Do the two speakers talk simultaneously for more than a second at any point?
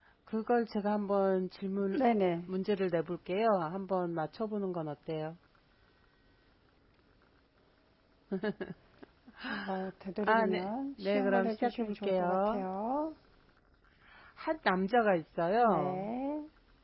Yes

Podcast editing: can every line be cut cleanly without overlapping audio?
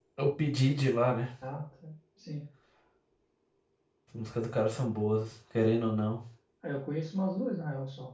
Yes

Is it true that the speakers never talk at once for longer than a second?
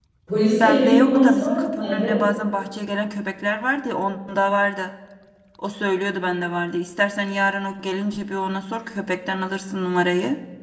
No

